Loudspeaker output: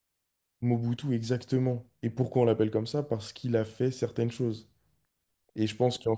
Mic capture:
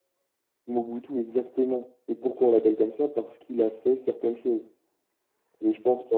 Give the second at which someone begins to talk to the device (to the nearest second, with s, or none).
none